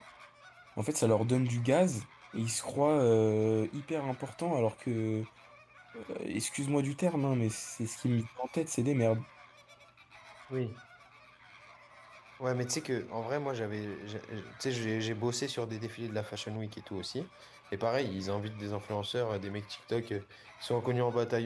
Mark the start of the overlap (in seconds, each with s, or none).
none